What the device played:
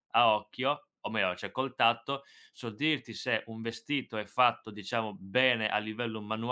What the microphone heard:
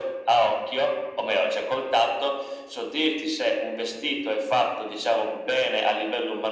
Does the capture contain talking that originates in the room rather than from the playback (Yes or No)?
No